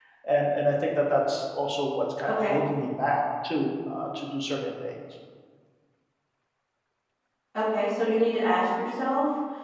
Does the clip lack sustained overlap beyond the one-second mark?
Yes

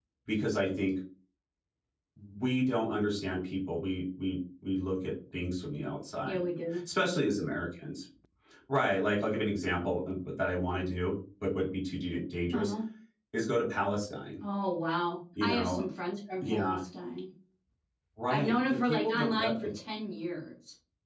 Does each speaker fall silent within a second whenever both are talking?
No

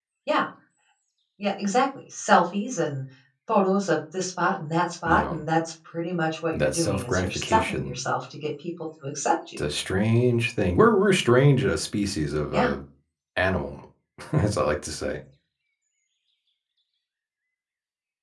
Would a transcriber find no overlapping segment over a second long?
No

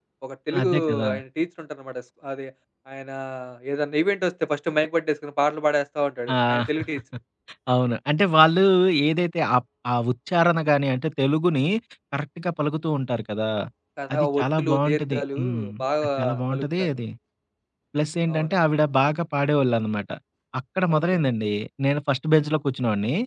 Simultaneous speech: Yes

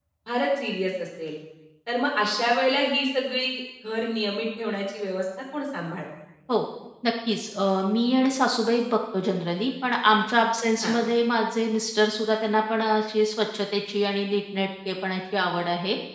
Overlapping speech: No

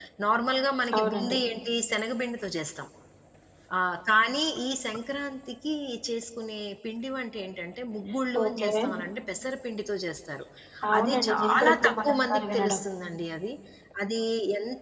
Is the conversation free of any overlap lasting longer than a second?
No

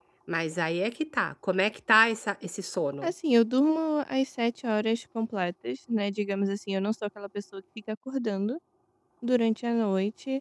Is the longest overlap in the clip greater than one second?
No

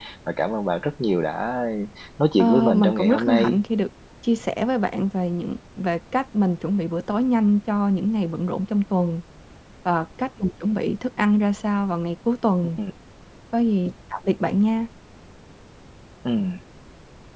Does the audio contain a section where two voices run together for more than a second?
Yes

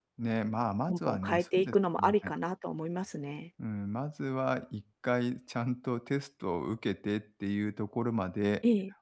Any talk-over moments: Yes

